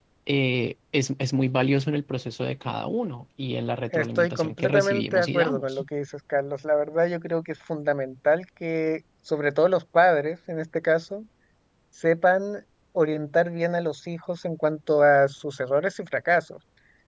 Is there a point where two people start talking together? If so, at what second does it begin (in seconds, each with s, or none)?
3.9 s